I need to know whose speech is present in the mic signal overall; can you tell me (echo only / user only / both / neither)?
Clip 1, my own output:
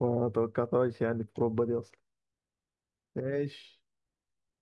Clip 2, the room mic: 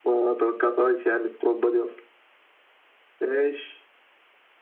echo only